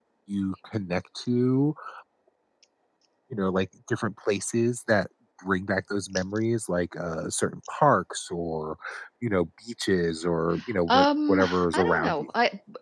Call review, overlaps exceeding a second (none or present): present